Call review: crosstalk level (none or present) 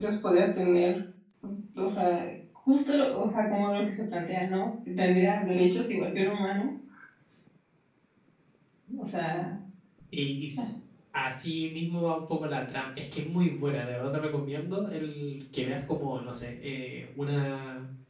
none